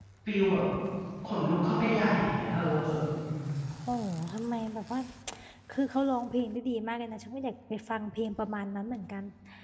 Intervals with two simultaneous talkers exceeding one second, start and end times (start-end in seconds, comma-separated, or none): none